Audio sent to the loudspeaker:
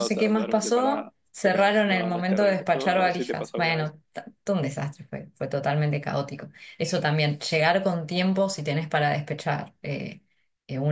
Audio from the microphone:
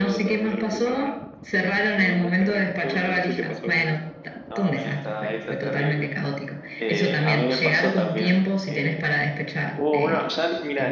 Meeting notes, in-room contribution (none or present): present